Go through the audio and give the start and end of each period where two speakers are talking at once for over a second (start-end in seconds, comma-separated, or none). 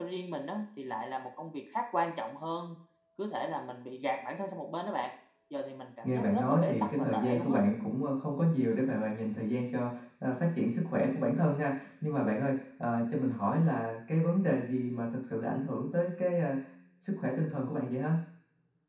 6.0-7.6